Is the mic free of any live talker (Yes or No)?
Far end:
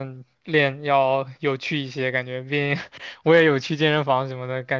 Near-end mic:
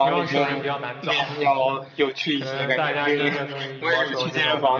No